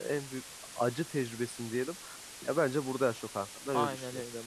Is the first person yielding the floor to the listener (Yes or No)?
Yes